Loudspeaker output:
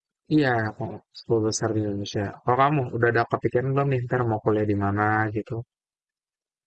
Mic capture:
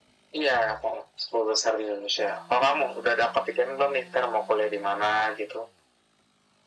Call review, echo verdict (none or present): present